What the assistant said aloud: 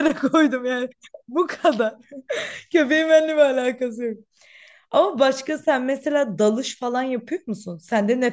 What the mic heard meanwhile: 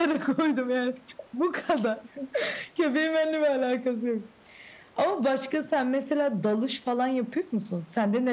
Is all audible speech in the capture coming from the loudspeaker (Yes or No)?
Yes